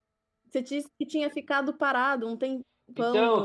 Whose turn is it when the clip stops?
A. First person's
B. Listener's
B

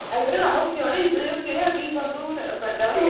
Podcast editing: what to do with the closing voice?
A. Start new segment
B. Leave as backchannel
A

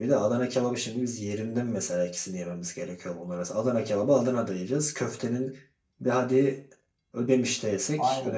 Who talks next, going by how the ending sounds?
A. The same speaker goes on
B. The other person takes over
B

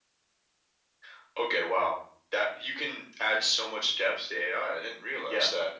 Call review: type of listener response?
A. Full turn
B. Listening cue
A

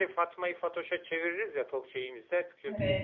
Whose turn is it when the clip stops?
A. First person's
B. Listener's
A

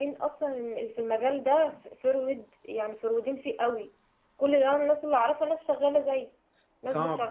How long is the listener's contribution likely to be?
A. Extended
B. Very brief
A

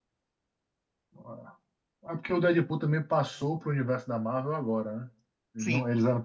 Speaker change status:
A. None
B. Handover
A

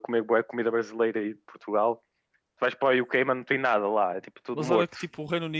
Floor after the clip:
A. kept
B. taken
B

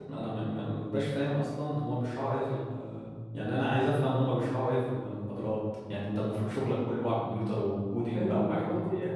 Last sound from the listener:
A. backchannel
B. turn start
B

